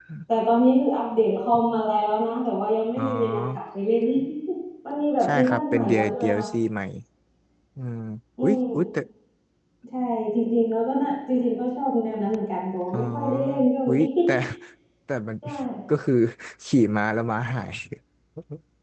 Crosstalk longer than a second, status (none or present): present